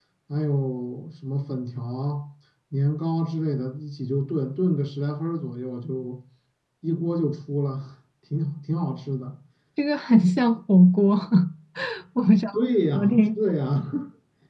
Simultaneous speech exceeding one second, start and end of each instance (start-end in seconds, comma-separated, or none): none